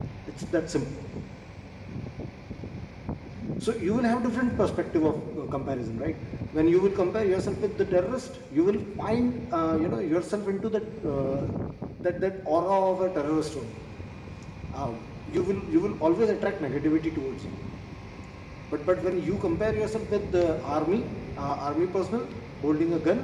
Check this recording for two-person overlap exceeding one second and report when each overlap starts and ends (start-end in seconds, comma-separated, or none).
none